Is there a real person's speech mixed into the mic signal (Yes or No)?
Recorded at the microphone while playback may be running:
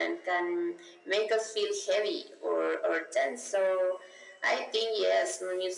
No